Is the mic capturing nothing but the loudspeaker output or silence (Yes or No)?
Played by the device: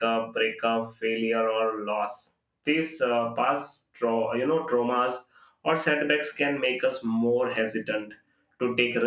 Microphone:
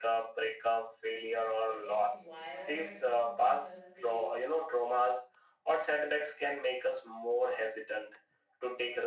No